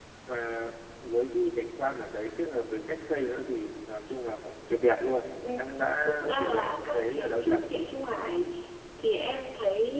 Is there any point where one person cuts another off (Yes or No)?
Yes